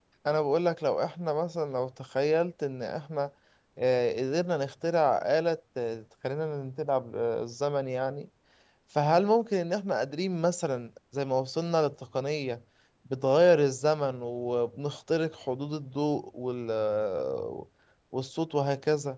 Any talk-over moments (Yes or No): No